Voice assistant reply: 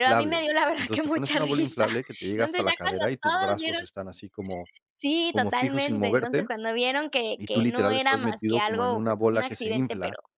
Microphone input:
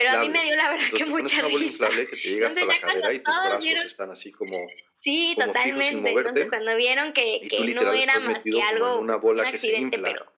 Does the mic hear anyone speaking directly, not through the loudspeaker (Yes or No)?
No